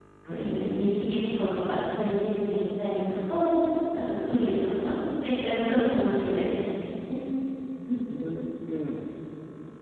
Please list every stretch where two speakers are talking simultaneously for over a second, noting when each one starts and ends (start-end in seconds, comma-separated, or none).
none